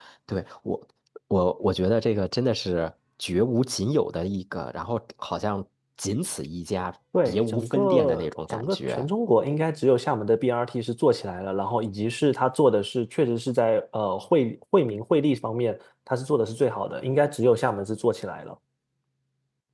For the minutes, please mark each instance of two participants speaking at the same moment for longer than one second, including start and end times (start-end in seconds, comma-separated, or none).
7.2-9.1